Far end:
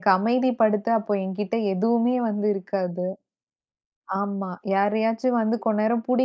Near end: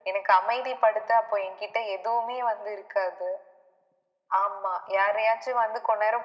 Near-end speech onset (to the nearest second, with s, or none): none